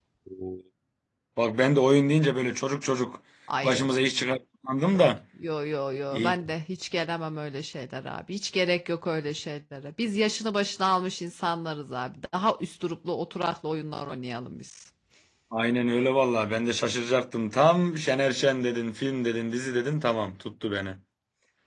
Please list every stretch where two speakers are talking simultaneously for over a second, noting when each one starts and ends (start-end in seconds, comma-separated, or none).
none